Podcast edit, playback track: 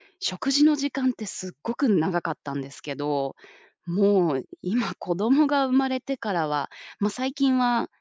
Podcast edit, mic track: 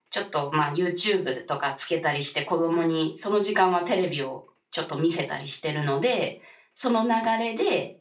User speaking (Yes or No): Yes